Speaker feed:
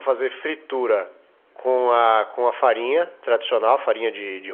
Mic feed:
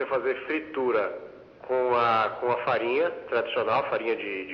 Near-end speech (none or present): none